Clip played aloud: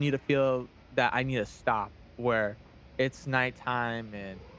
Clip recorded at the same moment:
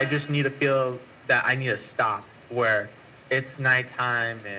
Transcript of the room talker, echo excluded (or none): none